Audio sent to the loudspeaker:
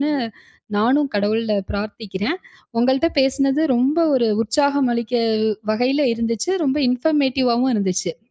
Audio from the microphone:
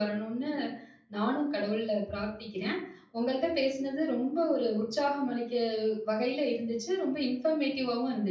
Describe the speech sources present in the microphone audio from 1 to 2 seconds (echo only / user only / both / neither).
echo only